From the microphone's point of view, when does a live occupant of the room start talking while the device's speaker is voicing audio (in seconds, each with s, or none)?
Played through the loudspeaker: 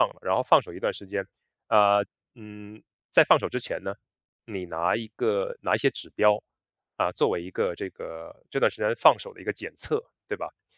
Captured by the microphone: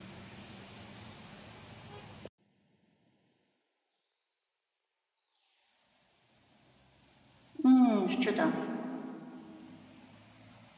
7.6 s